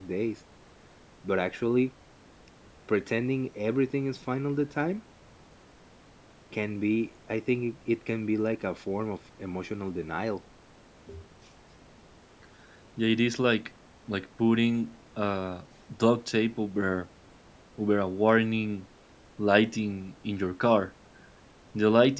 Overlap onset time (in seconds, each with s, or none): none